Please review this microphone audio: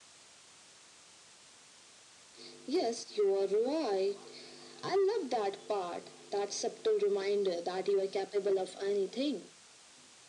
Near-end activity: none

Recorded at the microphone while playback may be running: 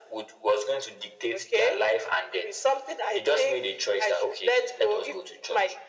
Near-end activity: none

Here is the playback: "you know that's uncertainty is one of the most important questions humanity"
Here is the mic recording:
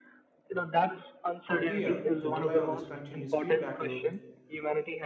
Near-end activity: present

